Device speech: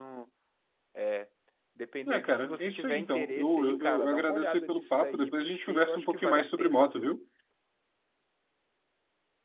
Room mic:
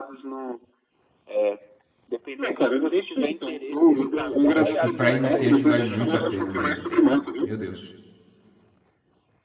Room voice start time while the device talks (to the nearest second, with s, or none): 4 s